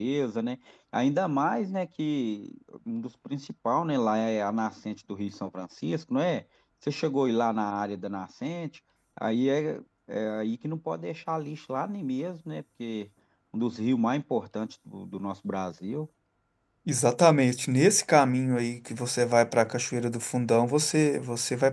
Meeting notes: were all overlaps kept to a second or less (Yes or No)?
Yes